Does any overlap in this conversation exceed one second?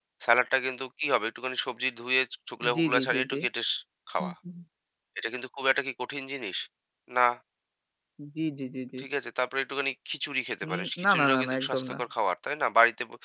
Yes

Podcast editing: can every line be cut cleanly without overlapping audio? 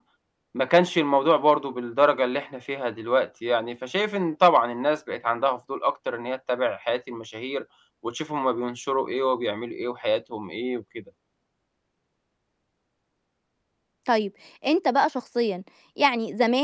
Yes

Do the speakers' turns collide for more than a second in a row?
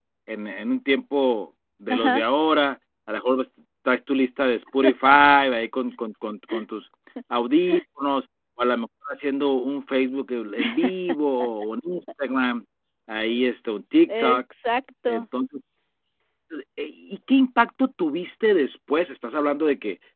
No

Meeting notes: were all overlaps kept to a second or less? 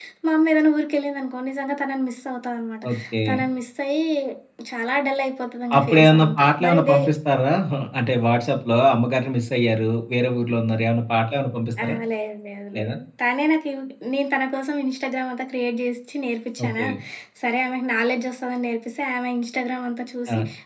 No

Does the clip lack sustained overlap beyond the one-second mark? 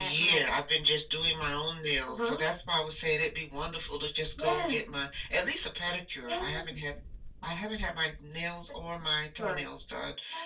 Yes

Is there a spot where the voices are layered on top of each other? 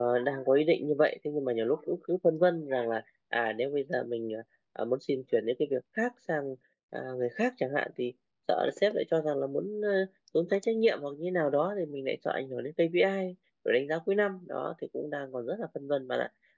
No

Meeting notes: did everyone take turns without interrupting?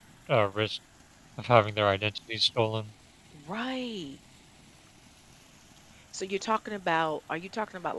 Yes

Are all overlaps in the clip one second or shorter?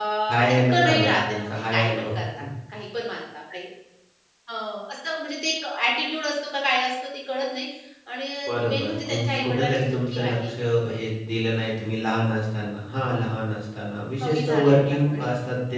No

